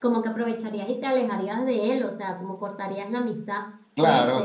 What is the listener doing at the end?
taking over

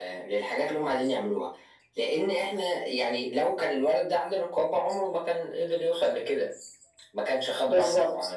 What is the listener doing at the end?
taking over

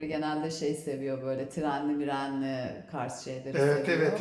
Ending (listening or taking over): taking over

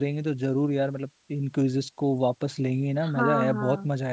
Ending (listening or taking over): taking over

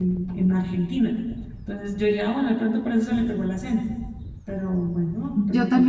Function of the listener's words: taking over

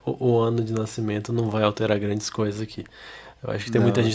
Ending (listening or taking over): listening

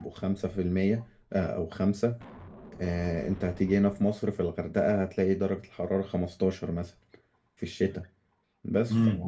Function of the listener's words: taking over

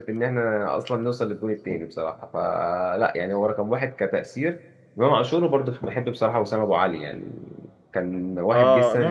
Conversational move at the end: taking over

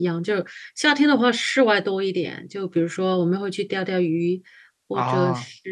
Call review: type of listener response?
listening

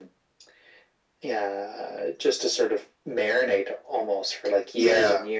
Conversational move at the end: listening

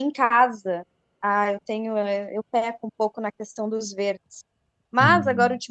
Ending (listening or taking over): listening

